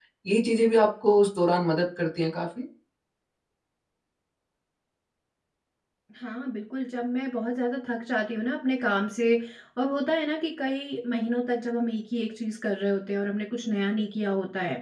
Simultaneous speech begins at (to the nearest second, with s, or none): none